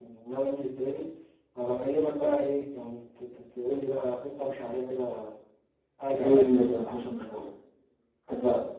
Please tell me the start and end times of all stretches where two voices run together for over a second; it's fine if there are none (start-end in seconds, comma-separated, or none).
6.2-7.4